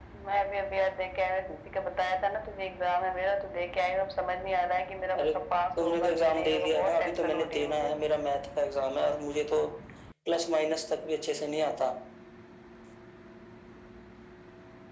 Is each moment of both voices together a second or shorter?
No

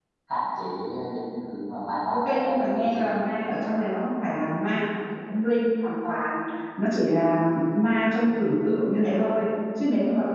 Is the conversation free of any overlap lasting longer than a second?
No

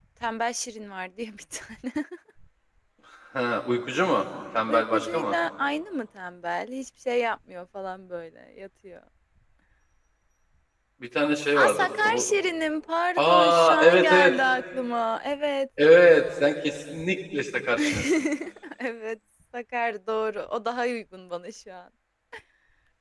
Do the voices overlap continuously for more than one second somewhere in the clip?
Yes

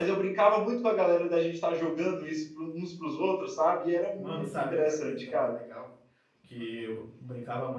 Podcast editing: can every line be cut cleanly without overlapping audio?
No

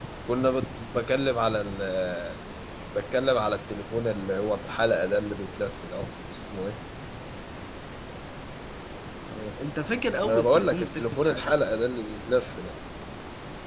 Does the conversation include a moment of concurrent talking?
Yes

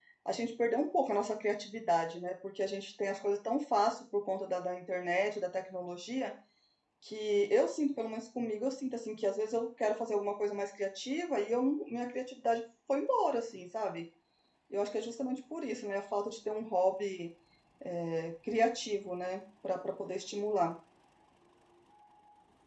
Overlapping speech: No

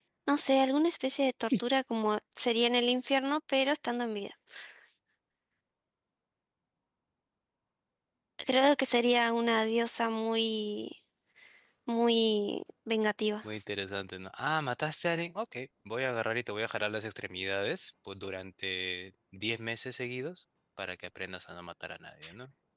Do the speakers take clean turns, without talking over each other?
Yes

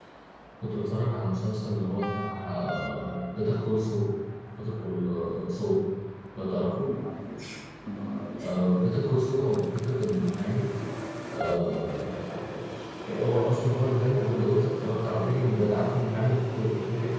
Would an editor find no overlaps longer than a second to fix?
Yes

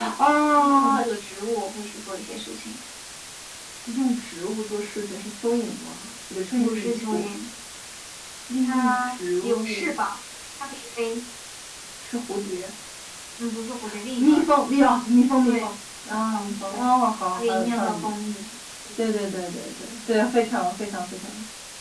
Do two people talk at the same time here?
Yes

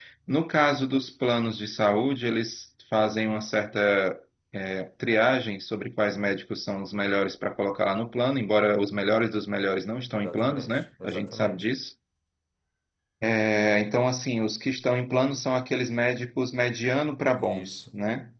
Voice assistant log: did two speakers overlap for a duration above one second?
Yes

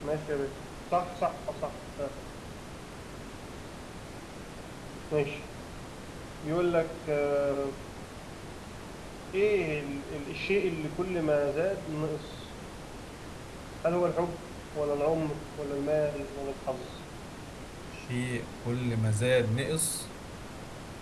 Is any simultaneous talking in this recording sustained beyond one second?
No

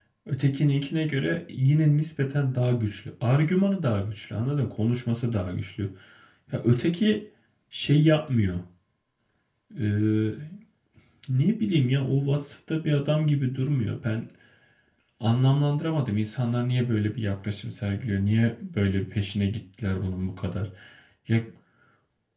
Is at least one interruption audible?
No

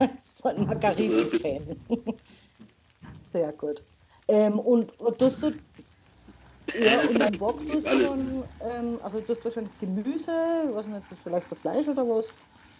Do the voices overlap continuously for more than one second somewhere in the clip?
Yes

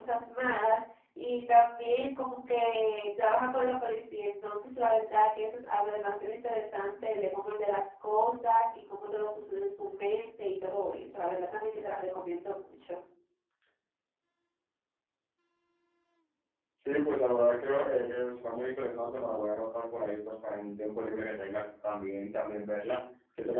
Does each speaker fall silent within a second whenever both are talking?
Yes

